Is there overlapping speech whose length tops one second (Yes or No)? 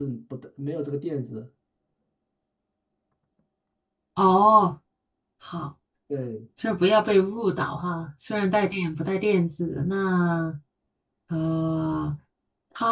No